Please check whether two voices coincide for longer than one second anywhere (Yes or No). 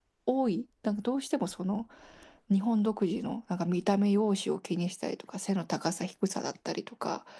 No